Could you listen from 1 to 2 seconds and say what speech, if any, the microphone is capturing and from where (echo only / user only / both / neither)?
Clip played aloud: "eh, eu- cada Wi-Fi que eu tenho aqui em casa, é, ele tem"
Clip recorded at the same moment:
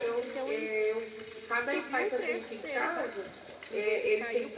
both